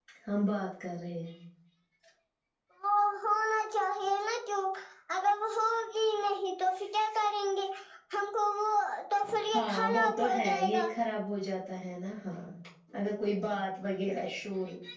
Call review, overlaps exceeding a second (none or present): present